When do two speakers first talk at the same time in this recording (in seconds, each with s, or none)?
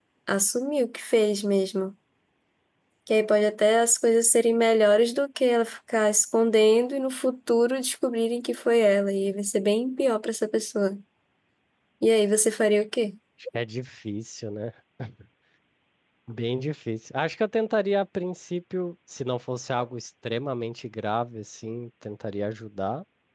none